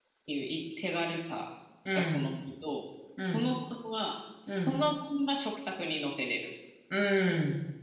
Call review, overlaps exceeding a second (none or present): none